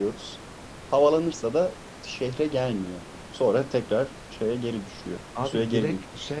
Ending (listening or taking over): taking over